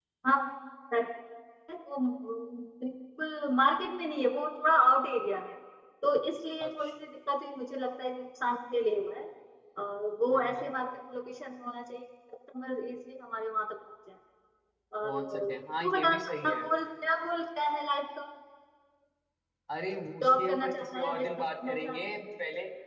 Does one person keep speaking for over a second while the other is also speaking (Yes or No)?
Yes